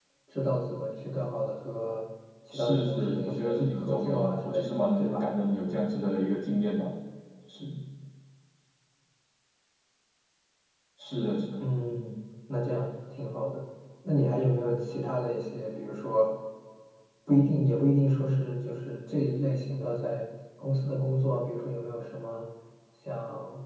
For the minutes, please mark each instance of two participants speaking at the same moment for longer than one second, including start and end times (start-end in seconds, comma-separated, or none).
2.5-5.2